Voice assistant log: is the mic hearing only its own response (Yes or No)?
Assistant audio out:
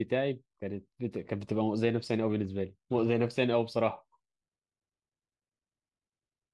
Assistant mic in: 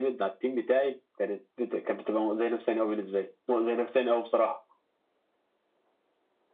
Yes